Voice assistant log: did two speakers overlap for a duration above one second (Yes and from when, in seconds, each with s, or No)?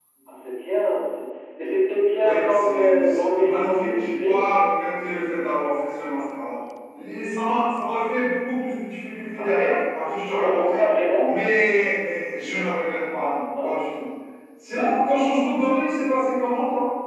Yes, from 2.2 s